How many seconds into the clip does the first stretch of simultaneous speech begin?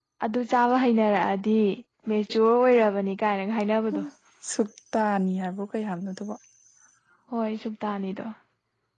none

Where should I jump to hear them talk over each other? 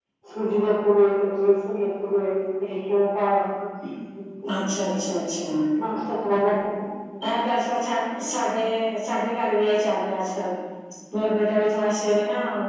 none

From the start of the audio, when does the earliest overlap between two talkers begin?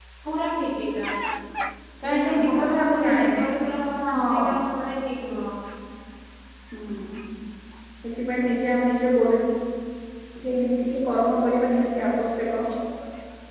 2.1 s

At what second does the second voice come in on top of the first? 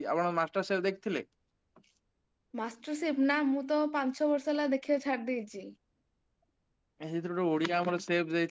none

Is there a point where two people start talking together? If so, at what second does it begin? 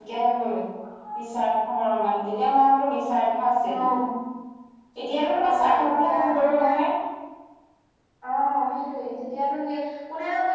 5.4 s

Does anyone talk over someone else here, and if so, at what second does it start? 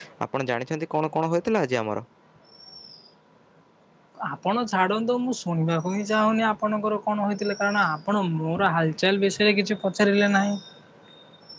none

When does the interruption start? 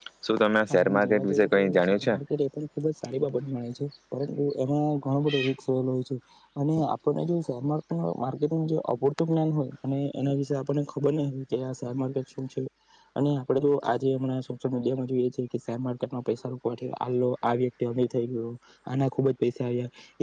0.7 s

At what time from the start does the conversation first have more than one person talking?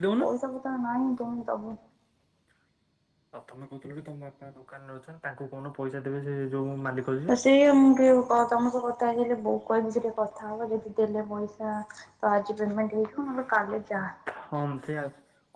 none

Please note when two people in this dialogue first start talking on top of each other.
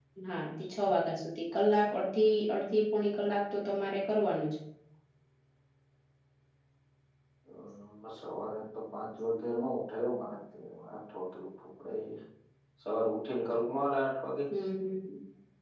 none

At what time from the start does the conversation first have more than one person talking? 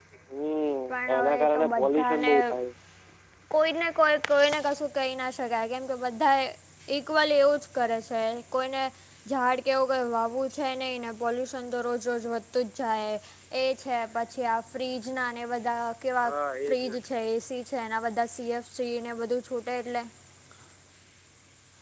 0.9 s

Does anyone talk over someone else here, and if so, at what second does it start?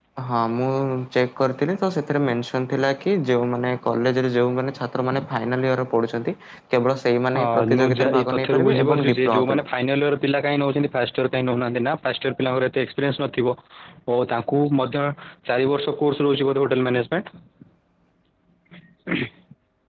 7.3 s

